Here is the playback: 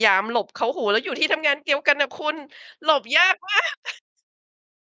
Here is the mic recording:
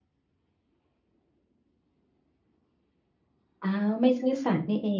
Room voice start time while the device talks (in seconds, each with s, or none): 3.6 s